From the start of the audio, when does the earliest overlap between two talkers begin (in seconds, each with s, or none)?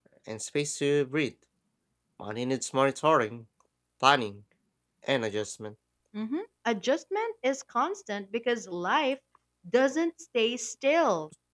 none